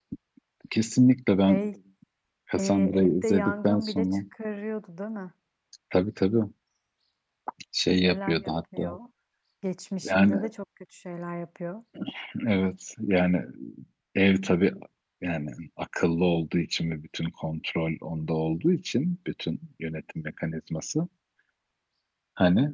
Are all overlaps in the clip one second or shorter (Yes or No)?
No